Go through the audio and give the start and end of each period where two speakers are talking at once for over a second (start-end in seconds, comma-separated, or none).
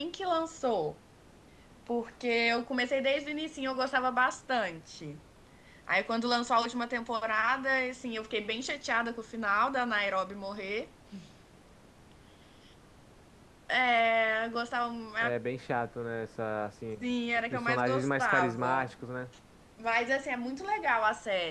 17.5-18.9